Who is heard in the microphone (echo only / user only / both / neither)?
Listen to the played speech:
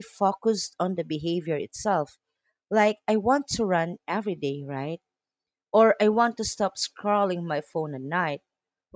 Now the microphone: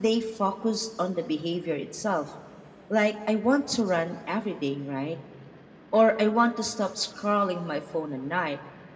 echo only